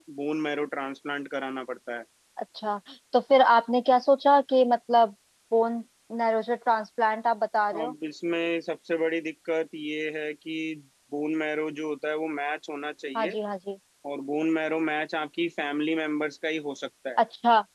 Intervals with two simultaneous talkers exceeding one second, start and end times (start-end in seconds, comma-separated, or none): none